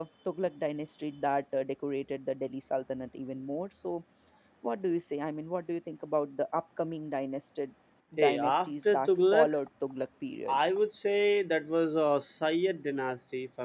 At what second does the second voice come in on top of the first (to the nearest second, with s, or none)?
8 s